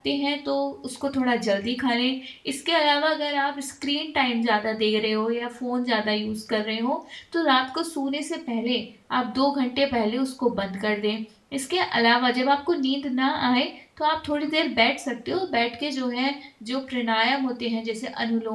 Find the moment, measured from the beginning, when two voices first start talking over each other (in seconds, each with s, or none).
none